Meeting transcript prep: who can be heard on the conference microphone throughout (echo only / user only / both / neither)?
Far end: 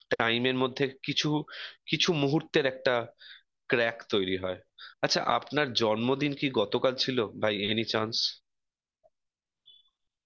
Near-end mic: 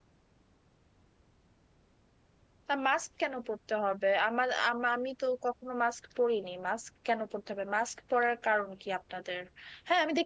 user only